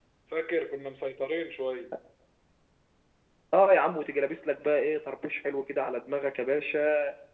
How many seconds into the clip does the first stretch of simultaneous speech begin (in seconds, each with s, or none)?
none